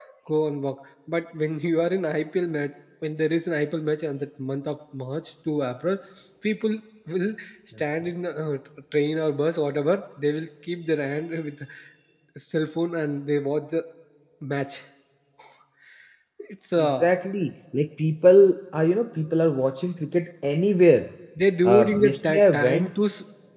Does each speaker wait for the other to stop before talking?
No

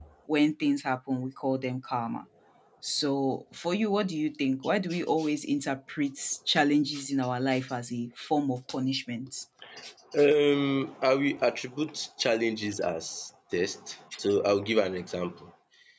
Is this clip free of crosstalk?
Yes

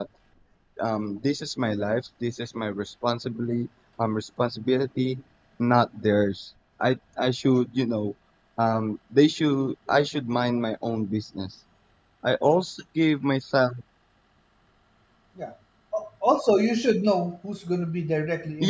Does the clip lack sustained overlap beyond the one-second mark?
Yes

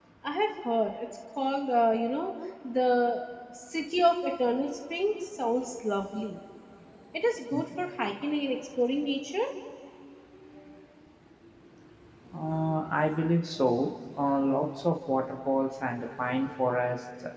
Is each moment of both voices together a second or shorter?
Yes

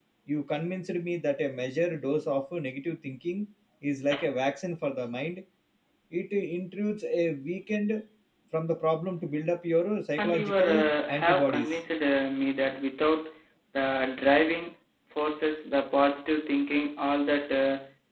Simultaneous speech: Yes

